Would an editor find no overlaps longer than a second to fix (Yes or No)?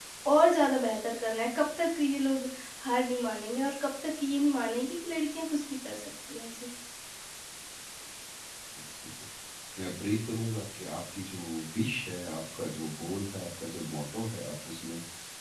Yes